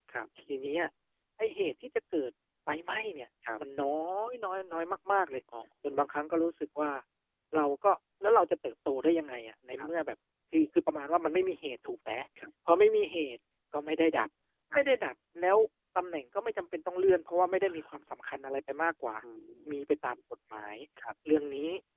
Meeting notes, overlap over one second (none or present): none